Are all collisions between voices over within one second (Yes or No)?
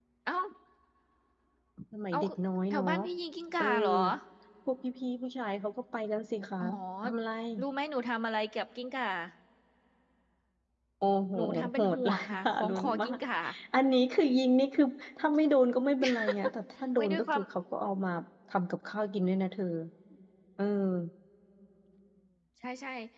No